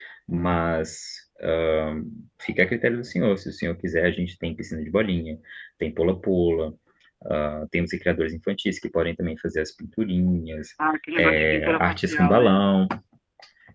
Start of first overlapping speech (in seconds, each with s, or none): 11.2 s